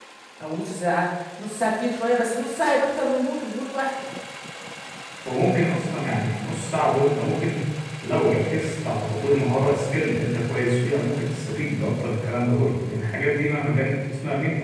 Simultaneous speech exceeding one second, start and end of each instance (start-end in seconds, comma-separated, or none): none